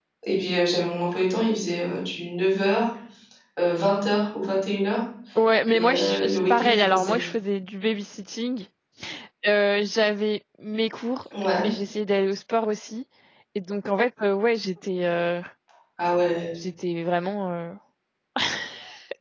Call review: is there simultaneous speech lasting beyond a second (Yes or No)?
Yes